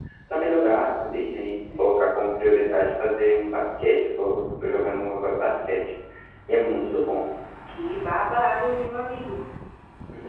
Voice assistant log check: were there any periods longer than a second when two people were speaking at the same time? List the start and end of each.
none

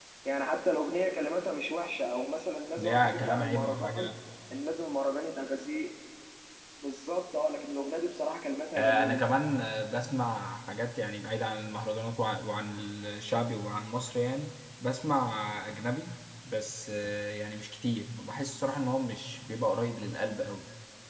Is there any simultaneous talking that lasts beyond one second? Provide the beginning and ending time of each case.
2.8-4.1

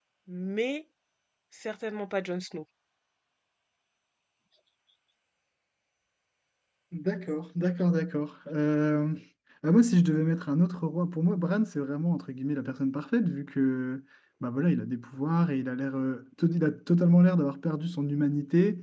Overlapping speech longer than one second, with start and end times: none

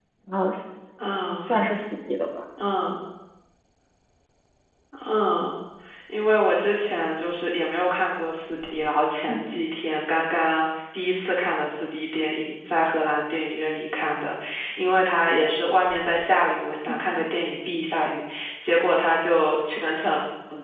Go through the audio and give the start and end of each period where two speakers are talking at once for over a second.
none

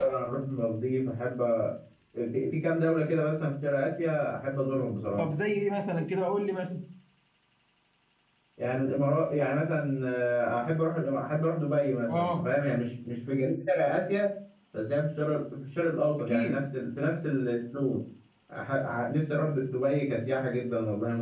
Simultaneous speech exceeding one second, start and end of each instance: none

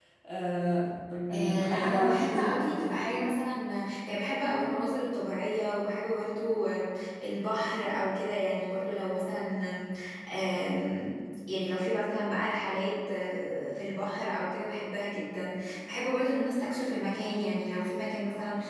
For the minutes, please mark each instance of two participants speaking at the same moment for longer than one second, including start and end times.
1.3-3.0

